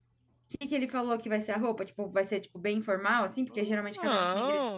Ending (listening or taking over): taking over